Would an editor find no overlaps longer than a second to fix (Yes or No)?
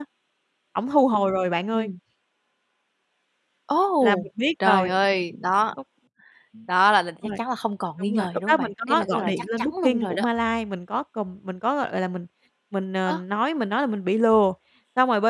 No